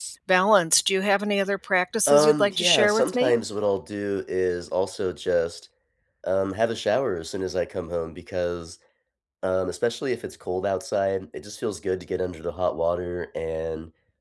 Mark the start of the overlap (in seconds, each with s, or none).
2.1 s